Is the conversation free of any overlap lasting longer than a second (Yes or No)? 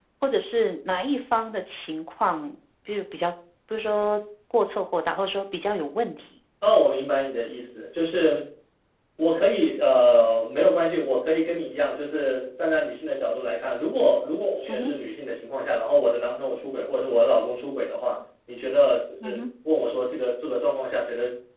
Yes